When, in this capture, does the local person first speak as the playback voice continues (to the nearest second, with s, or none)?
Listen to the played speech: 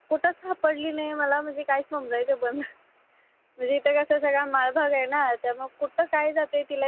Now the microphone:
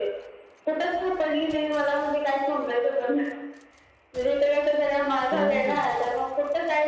5 s